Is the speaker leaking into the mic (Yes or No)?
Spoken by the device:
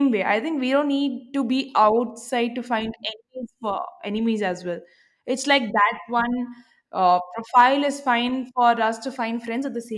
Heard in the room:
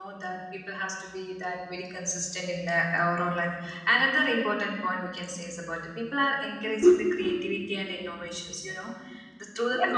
No